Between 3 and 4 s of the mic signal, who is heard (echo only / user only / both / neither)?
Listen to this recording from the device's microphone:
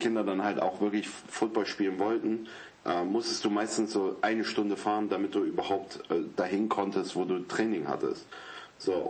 echo only